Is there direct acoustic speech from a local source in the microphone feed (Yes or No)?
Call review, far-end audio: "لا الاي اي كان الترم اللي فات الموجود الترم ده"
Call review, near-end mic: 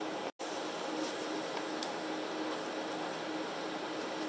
No